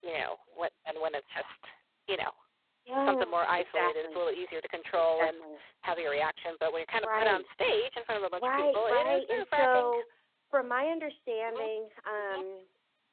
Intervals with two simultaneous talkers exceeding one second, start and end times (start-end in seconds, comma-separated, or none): 3.0-4.2, 8.4-9.9